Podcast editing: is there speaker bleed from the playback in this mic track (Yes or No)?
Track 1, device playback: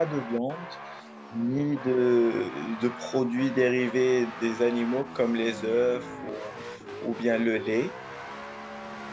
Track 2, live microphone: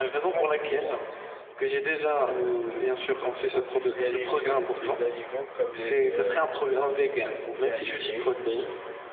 Yes